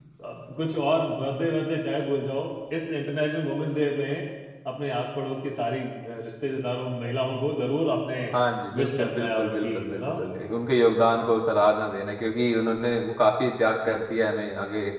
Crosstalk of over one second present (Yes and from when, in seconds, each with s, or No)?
Yes, from 8.8 s